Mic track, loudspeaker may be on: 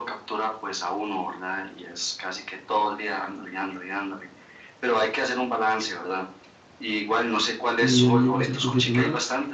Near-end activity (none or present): present